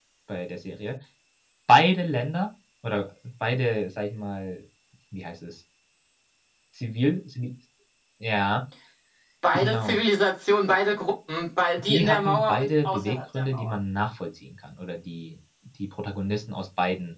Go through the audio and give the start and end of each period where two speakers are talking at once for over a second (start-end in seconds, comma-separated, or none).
11.8-13.8